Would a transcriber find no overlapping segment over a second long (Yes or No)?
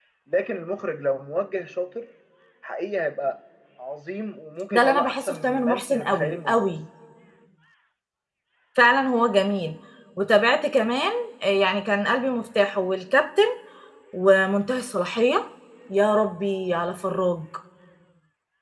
No